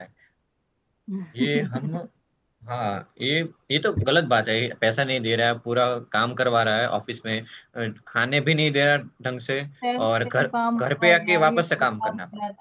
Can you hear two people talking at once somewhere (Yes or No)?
Yes